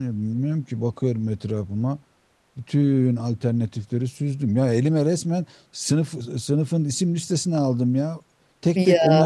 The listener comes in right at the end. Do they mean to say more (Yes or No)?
No